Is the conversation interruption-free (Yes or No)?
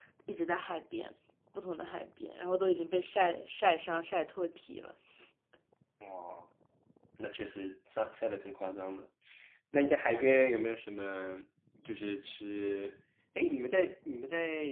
Yes